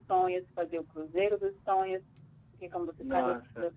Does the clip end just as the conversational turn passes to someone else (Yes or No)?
No